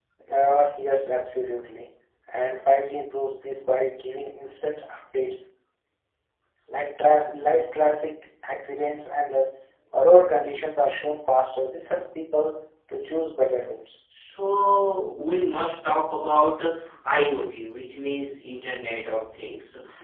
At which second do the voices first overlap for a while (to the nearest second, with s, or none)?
none